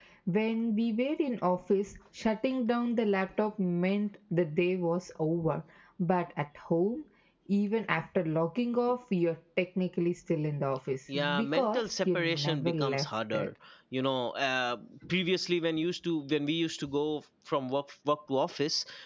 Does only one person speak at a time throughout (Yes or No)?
No